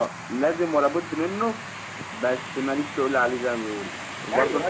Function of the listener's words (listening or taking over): listening